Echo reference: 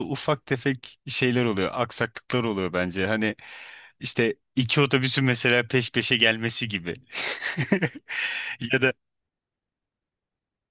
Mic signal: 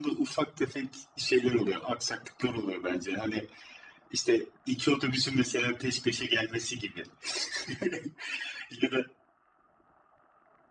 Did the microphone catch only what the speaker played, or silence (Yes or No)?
Yes